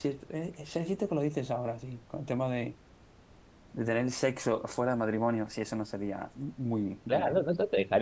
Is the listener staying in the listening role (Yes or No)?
No